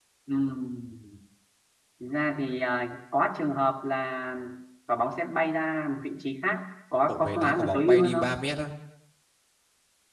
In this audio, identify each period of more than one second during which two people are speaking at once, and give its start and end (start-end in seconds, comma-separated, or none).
7.1-8.3